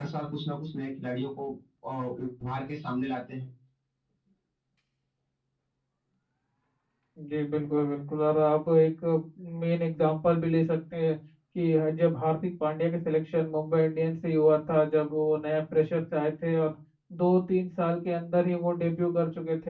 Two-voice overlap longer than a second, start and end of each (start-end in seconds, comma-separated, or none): none